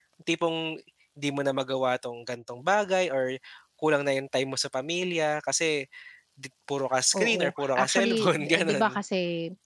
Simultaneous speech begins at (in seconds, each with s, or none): 7.2 s